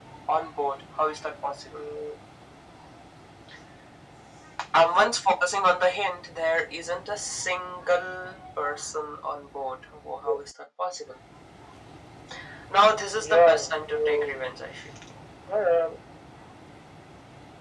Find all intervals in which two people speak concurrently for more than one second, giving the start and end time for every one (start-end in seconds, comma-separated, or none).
13.2-14.4